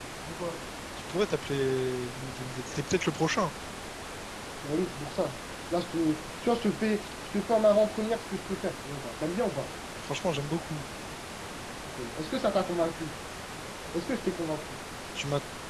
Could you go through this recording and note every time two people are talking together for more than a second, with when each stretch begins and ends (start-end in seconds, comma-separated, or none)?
none